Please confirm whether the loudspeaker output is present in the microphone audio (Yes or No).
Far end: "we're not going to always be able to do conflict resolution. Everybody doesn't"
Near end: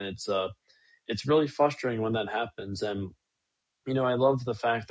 No